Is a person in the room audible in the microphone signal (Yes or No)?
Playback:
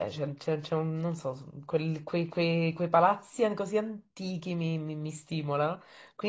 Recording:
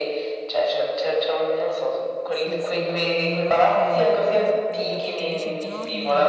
Yes